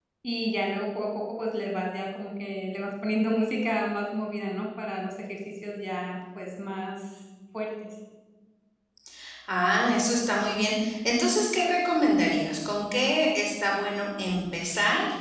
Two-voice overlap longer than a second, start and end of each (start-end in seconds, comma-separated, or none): none